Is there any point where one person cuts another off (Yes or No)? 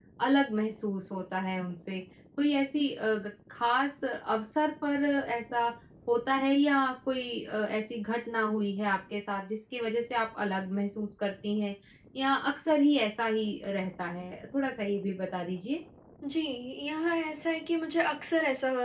No